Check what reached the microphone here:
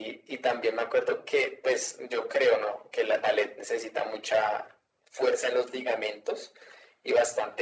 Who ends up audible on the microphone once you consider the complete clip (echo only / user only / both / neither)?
echo only